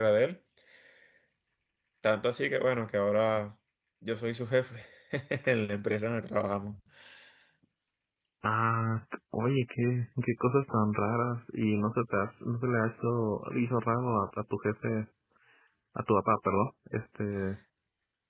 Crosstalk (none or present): none